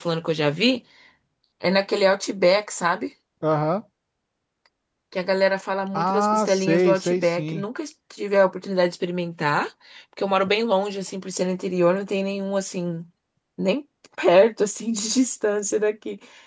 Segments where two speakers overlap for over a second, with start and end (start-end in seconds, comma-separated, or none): 5.9-7.6